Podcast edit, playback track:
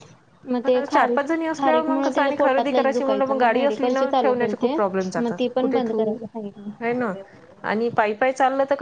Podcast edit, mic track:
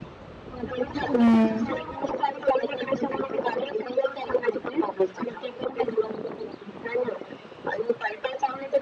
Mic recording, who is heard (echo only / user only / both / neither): both